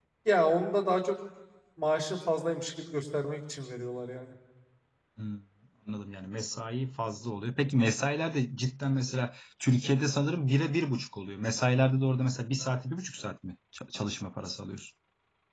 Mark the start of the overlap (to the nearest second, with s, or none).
none